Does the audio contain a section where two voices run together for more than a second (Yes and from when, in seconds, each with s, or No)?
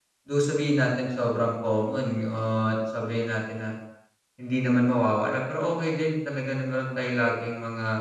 No